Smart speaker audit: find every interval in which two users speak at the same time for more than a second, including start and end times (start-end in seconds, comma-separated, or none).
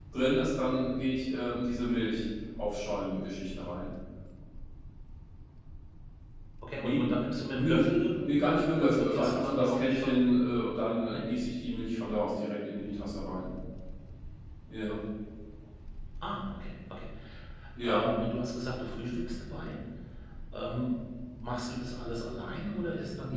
8.8-10.4